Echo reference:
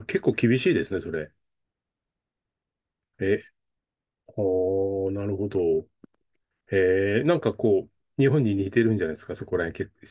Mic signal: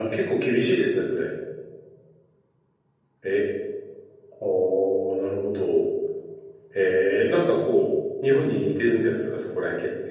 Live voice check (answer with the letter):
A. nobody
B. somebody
A